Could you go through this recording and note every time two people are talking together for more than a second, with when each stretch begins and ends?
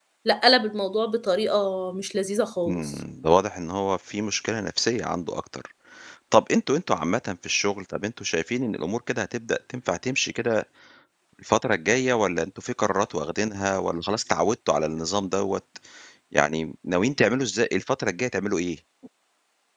none

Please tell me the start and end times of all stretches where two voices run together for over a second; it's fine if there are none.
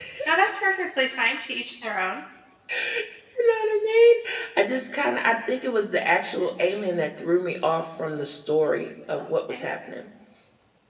none

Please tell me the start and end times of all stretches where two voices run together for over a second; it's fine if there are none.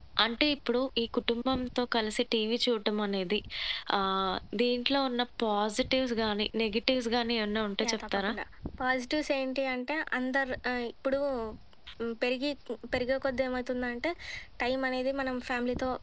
none

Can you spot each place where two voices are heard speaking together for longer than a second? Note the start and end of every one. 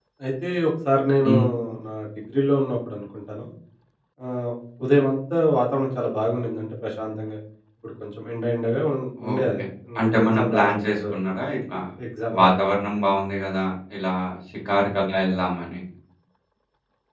10.0-11.4

